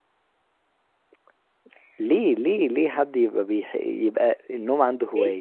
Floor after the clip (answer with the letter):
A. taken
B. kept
A